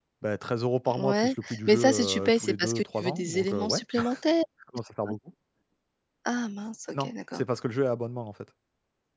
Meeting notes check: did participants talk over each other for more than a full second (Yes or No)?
Yes